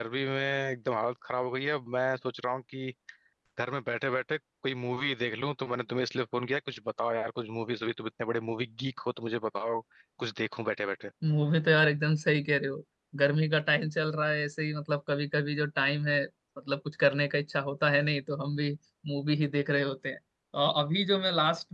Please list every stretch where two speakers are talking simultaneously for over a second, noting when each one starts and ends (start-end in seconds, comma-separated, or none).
none